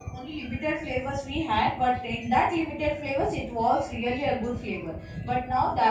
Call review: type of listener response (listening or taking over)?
listening